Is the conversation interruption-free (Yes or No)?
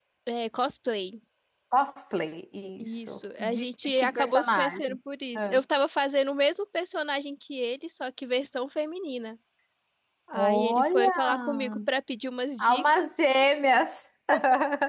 No